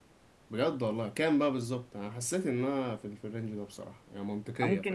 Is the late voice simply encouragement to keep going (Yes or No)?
No